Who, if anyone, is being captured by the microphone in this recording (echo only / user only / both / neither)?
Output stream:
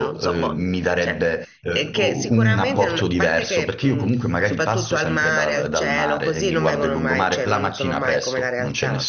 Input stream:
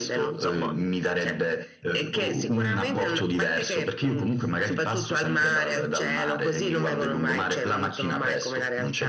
echo only